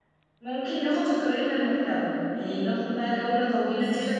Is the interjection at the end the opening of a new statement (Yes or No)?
No